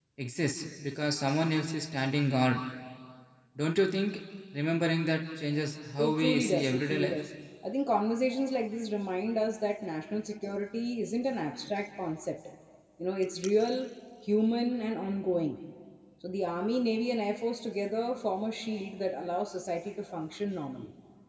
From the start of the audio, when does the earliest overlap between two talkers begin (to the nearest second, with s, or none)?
6 s